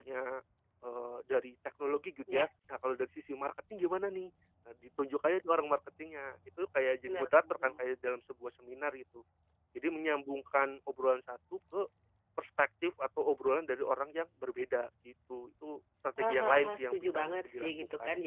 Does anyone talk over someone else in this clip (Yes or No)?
Yes